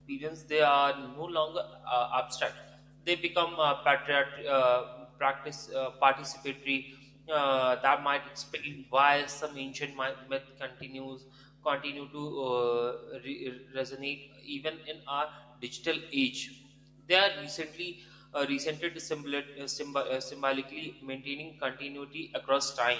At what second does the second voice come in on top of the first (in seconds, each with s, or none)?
none